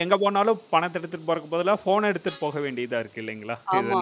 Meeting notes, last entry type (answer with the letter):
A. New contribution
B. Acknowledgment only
A